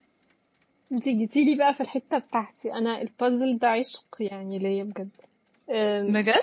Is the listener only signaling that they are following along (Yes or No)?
Yes